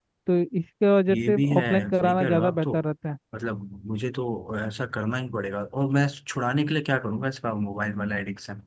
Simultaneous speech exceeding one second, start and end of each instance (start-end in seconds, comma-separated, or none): 1.1-2.7